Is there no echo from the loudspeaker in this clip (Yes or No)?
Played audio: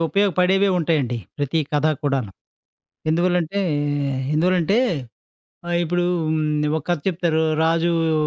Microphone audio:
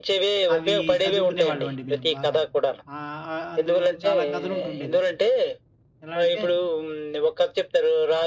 No